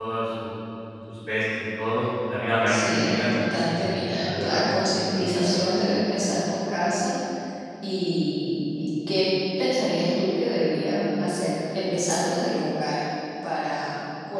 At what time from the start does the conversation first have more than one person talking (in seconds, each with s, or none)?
2.7 s